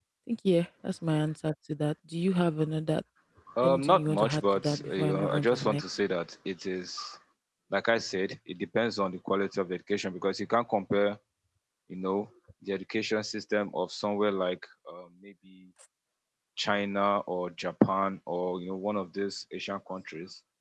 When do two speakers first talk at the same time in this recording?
3.6 s

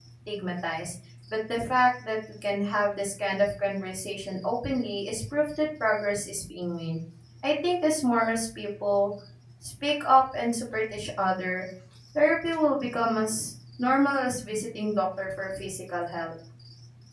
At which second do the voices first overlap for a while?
none

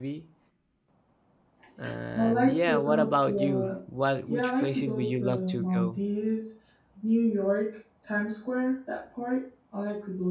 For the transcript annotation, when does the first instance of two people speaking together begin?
2.2 s

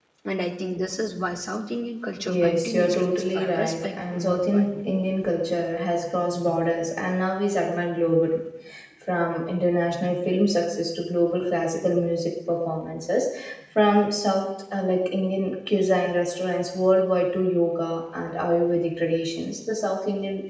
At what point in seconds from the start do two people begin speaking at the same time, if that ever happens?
2.2 s

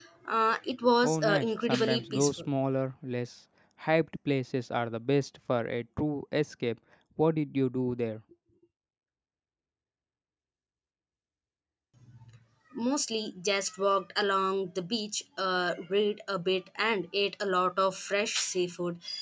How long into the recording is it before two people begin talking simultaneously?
1.0 s

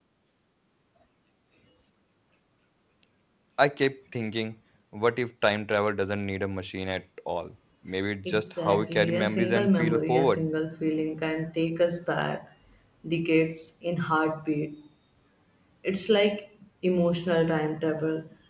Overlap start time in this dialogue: 8.2 s

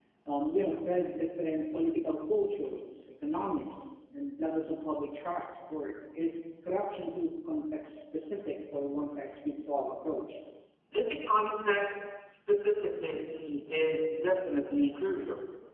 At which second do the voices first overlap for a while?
none

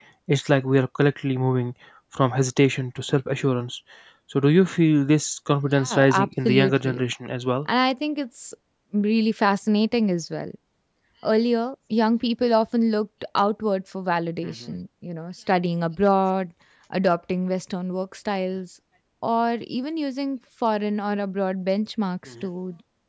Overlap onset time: 5.8 s

